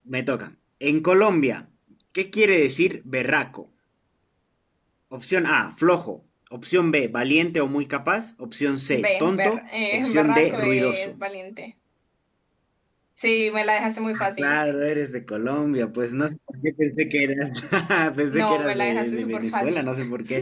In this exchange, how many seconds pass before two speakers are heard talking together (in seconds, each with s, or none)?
8.9 s